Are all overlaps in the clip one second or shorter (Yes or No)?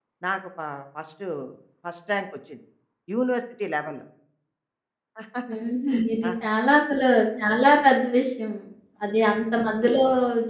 Yes